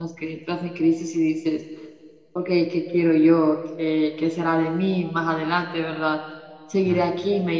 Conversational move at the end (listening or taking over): listening